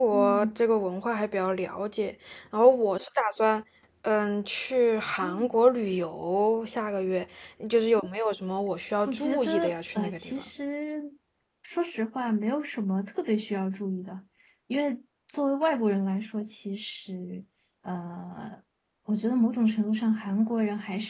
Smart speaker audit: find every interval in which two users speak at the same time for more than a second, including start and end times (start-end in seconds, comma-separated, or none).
9.1-10.4